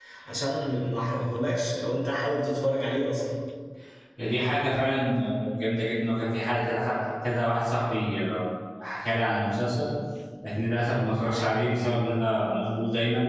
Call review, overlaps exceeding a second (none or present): none